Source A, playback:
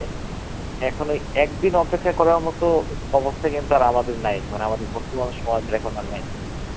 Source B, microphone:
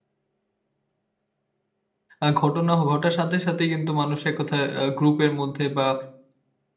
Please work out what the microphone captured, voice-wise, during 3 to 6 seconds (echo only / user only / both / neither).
user only